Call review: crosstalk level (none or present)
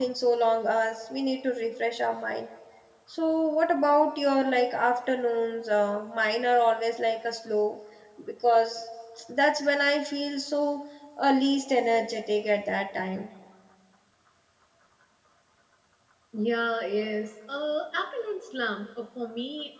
none